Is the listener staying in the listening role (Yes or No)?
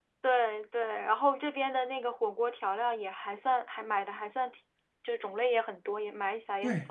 No